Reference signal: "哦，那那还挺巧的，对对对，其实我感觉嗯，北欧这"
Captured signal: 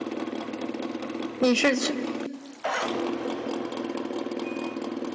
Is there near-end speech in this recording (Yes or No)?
Yes